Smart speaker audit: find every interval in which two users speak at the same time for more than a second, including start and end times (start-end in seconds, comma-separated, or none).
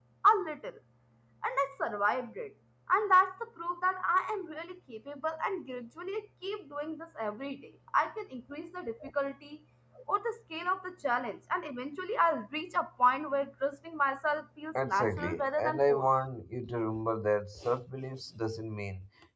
14.8-16.1